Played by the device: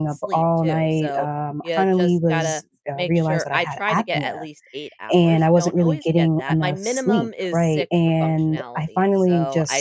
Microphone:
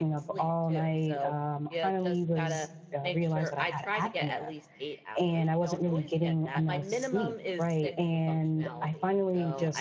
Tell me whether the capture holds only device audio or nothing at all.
Yes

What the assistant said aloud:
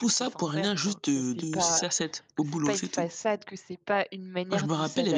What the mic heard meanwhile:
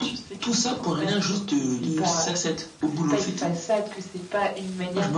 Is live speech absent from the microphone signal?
Yes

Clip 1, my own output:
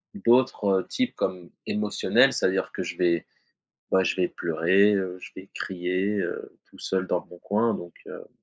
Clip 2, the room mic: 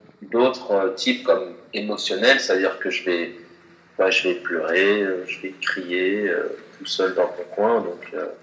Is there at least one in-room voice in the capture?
No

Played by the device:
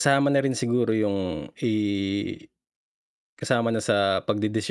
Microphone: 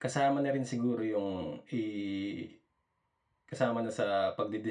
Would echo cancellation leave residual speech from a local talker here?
No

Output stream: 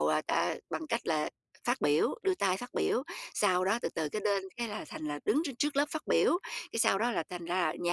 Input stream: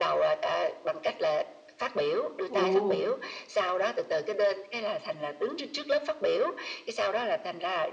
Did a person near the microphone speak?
Yes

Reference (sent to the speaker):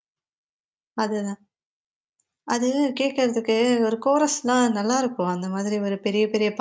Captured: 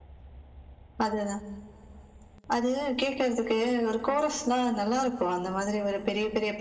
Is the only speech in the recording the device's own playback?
Yes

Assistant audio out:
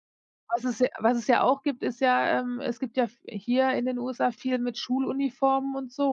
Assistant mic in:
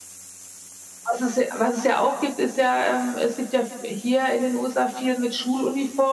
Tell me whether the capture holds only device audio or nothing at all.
Yes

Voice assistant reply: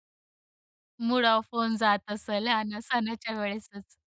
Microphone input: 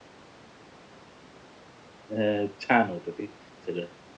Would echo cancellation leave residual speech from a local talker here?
Yes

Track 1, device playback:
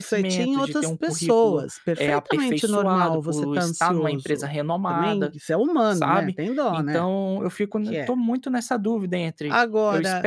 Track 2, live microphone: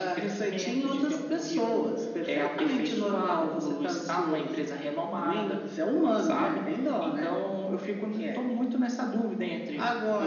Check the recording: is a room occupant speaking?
No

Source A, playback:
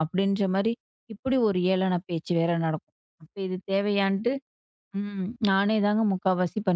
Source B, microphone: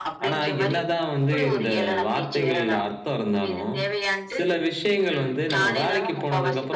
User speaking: Yes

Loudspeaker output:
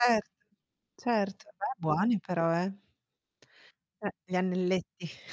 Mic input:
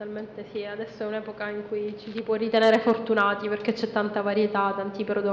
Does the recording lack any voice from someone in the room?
No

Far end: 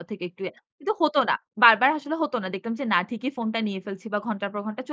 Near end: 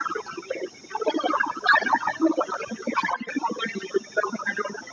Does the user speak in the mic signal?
No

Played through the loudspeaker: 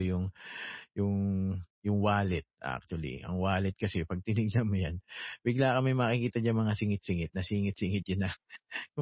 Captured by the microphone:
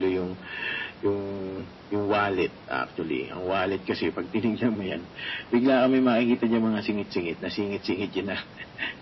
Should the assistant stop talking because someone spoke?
No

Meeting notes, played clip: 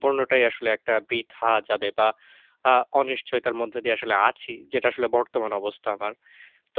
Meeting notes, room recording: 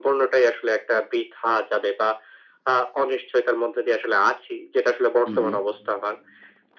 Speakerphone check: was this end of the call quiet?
No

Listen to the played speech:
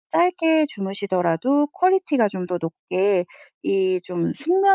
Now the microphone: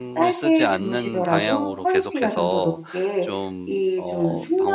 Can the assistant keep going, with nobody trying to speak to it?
No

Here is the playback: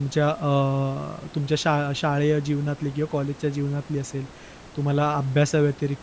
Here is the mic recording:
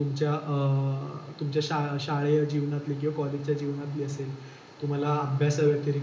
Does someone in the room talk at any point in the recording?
No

